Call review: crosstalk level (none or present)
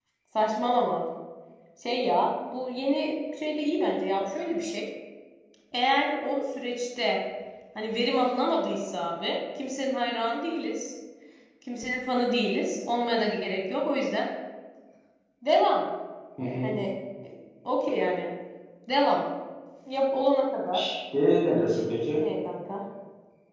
none